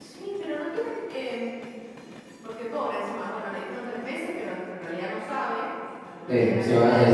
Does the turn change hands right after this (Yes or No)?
Yes